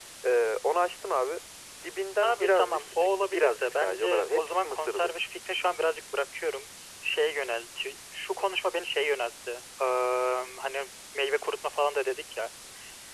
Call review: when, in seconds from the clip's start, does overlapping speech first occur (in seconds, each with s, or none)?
2.2 s